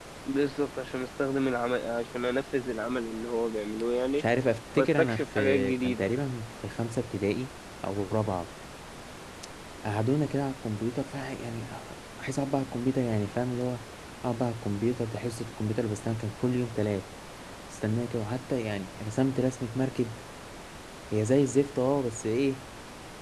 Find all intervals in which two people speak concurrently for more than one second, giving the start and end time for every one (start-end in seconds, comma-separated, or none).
4.8-6.1